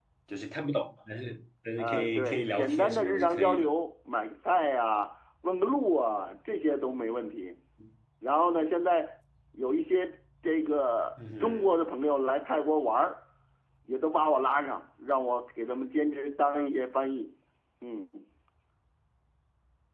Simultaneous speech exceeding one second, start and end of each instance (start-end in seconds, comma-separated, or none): 1.8-3.7